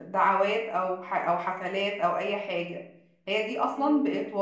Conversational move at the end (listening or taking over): listening